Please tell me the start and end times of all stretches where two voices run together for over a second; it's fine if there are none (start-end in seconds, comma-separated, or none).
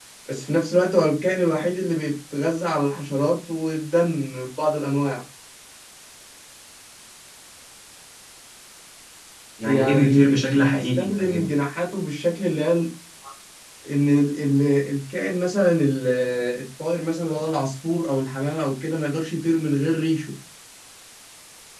9.6-11.5